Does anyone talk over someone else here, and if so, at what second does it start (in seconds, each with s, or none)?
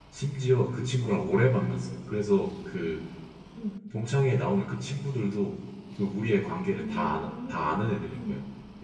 6.8 s